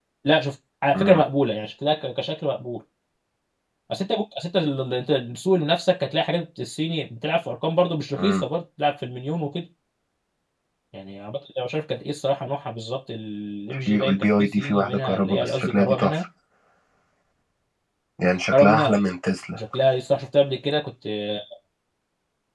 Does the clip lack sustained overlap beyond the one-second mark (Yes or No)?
No